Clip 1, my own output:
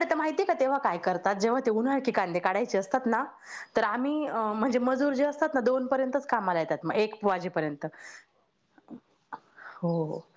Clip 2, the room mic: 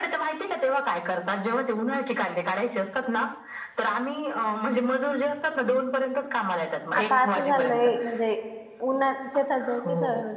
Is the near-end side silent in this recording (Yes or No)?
No